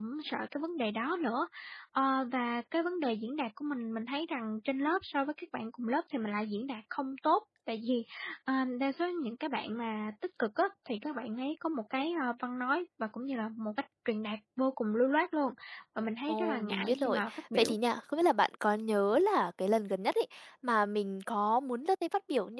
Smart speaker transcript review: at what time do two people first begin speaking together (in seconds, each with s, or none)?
16.3 s